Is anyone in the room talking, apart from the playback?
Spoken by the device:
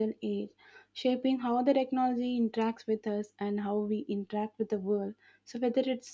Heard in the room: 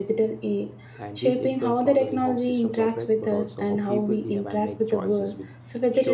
Yes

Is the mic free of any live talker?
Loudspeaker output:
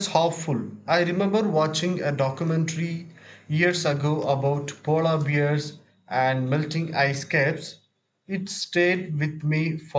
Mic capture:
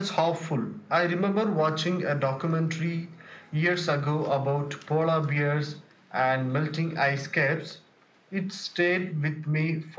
Yes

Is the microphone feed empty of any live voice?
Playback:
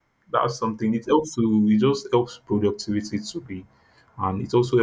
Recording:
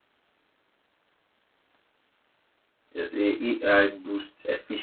No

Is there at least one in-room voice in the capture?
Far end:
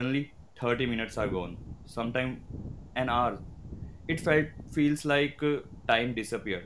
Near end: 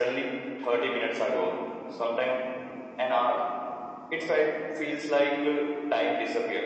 No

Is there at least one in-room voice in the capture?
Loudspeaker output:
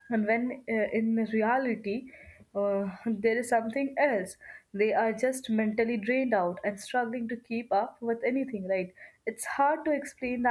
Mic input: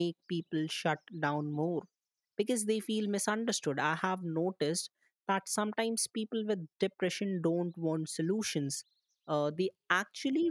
Yes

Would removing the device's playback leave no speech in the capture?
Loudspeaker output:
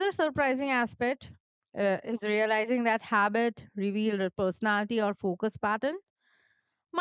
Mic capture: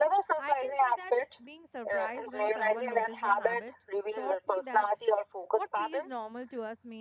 No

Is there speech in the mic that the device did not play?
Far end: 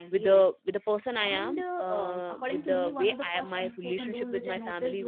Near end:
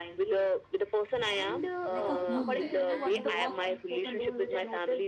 Yes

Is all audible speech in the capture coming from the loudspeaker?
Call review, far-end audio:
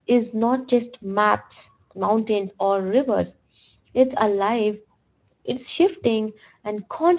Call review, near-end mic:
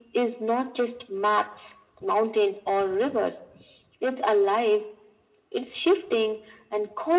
Yes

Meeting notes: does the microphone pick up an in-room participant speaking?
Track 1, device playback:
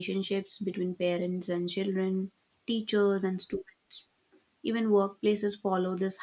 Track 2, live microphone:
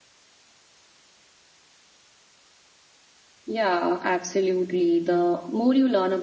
Yes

